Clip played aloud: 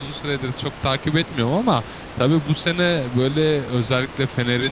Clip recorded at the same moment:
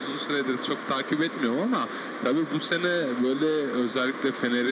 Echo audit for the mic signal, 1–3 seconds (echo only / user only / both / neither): echo only